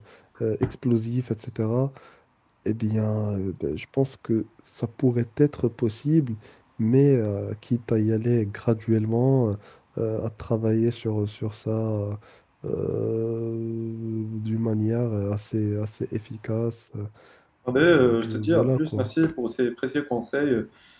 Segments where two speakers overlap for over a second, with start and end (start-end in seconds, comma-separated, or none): 17.8-19.1